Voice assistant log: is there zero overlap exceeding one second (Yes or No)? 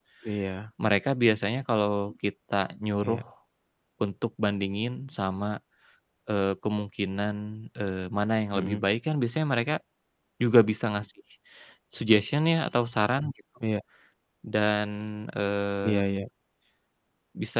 Yes